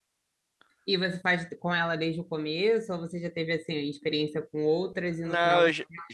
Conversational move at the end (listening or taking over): taking over